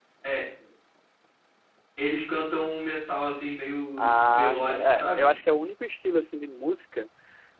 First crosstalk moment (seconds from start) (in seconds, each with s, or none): 4.0 s